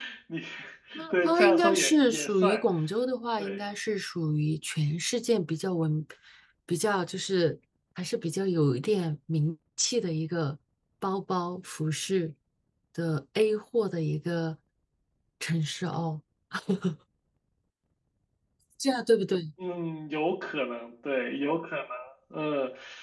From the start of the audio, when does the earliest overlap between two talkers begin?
1.1 s

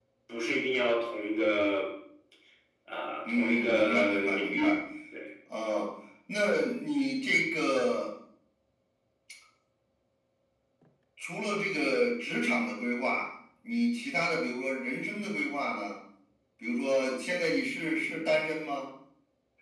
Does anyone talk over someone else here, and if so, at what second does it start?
3.2 s

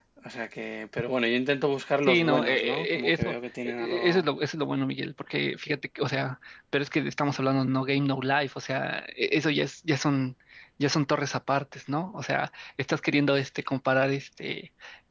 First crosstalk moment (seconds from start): 2.0 s

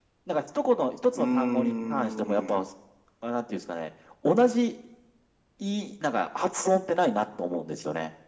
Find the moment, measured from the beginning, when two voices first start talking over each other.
1.1 s

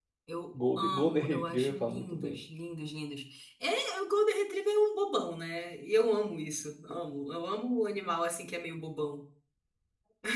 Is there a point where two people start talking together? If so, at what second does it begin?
0.6 s

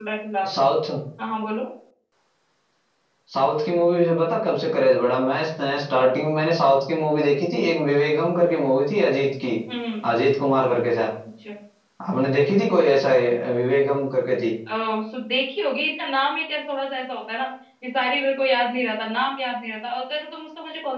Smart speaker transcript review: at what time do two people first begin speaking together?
none

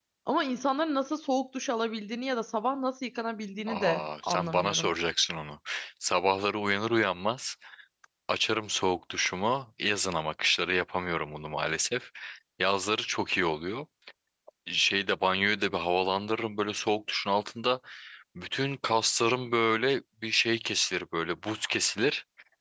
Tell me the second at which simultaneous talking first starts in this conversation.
3.7 s

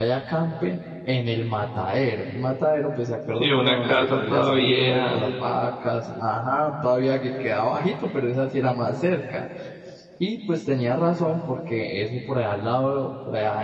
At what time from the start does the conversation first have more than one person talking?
3.4 s

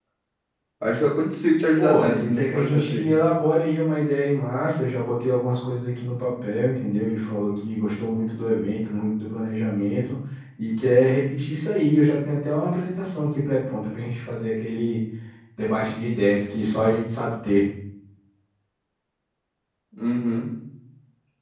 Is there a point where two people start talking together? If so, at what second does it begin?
1.8 s

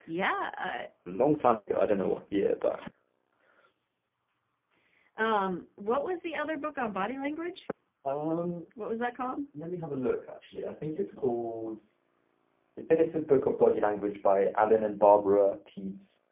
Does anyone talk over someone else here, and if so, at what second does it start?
none

